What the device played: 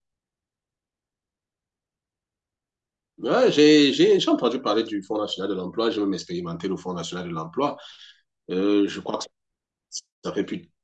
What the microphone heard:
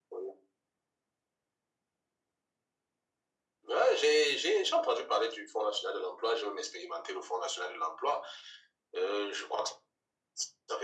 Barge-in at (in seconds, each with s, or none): none